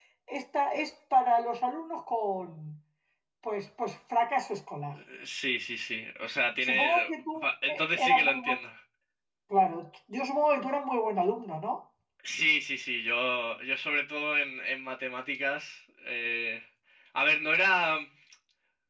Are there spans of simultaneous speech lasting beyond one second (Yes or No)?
Yes